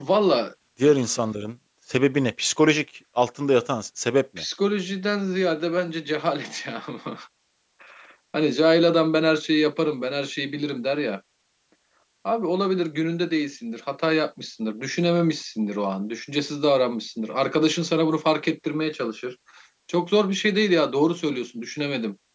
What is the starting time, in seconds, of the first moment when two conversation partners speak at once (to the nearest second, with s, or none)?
none